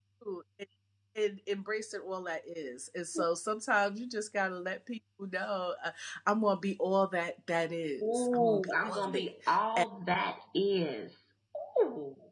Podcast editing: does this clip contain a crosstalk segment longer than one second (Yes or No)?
Yes